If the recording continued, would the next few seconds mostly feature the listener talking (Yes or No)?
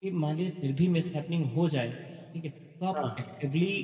No